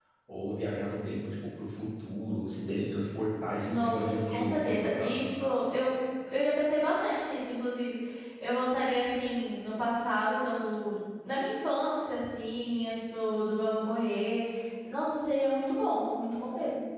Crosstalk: present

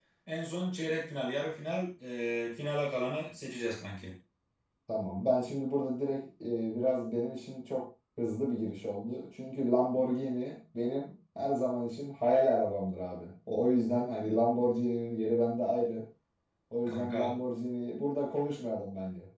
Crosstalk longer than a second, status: none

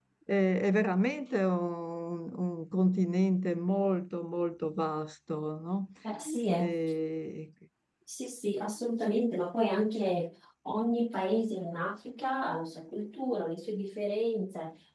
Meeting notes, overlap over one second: none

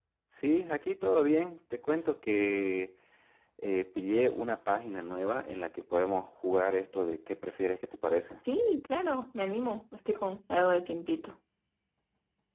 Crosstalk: none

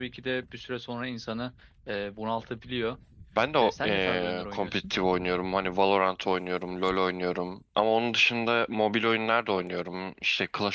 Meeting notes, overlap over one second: present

